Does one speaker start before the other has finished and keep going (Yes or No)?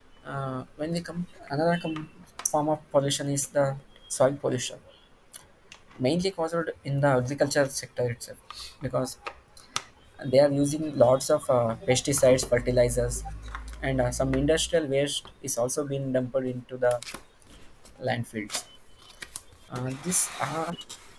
No